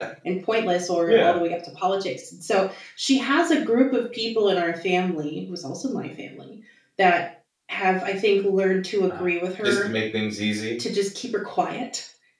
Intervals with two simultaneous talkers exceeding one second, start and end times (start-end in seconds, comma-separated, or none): none